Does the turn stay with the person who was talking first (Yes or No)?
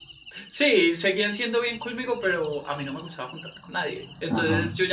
Yes